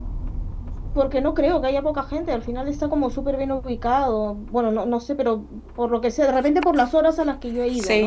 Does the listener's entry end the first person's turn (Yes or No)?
Yes